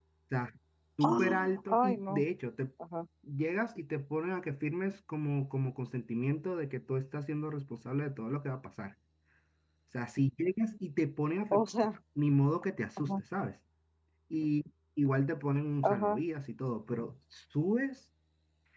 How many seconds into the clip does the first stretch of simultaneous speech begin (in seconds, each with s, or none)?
1.0 s